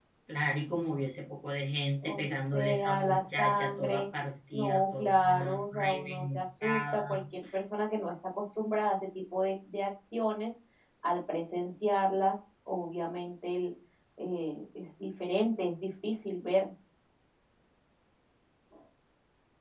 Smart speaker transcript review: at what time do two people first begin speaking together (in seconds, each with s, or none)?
2.0 s